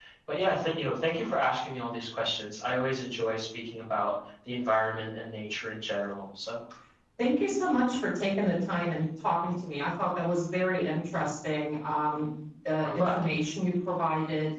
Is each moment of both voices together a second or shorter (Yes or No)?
Yes